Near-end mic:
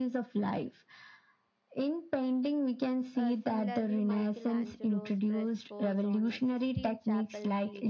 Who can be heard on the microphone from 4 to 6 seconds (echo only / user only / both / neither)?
both